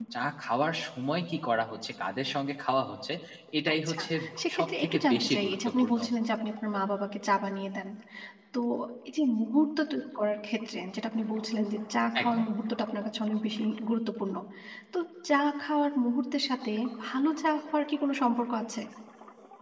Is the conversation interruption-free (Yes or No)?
No